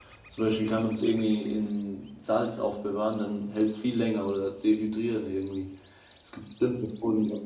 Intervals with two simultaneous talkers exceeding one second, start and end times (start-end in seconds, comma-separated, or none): none